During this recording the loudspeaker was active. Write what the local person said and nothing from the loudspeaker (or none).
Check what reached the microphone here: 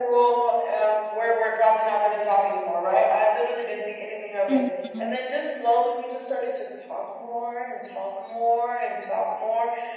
Mm-hmm.